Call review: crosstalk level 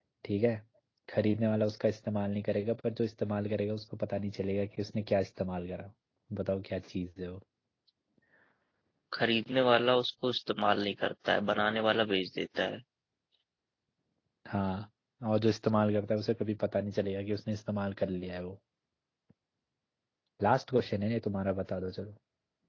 none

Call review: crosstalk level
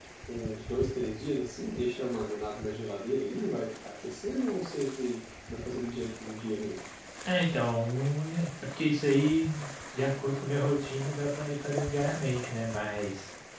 none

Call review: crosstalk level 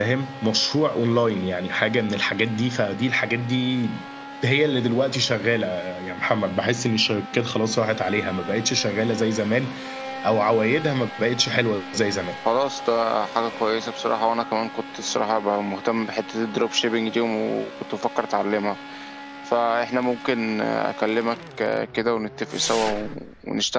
none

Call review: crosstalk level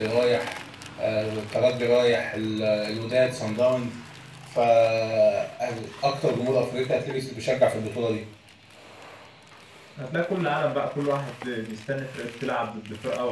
none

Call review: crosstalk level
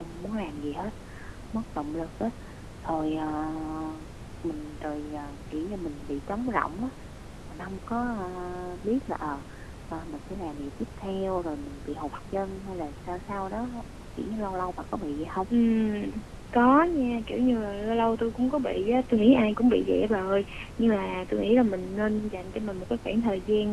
none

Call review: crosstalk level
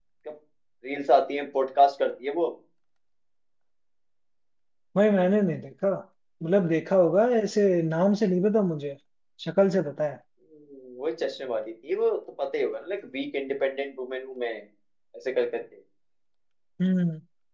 none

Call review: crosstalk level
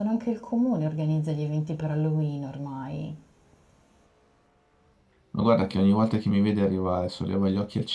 none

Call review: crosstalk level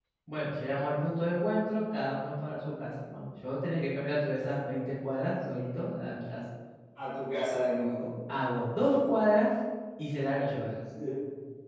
none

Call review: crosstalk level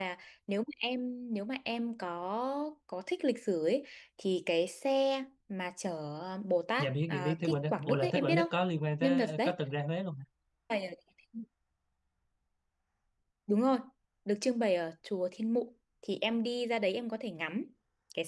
present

